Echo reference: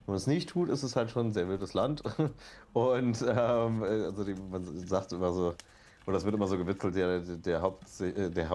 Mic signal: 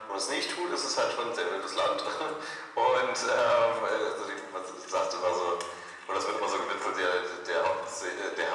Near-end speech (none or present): none